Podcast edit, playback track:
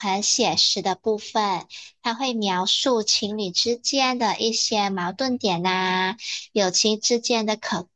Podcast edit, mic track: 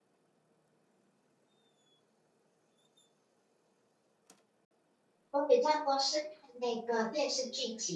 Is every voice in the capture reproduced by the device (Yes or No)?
No